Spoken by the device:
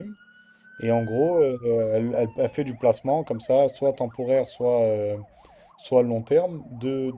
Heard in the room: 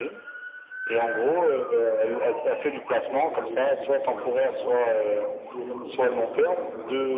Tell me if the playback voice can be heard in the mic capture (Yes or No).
Yes